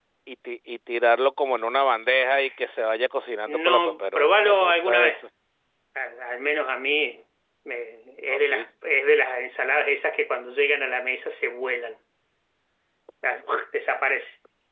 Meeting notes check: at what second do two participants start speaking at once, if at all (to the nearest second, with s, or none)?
3 s